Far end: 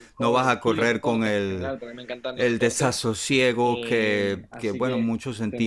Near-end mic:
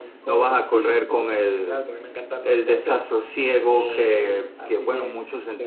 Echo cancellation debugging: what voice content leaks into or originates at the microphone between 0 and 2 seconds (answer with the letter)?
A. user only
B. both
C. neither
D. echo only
D